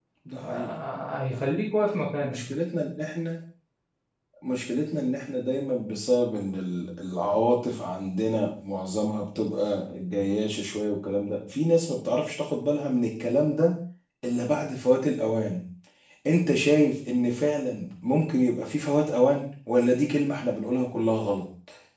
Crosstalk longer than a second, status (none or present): none